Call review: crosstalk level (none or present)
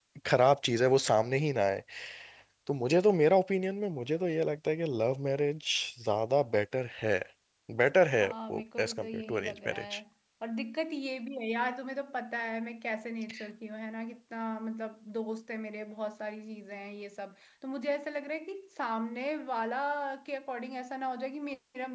present